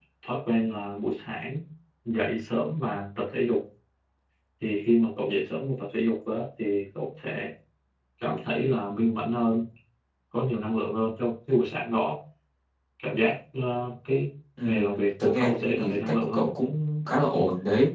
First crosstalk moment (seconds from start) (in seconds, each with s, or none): 14.6 s